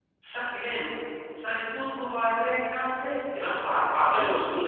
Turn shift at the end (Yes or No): Yes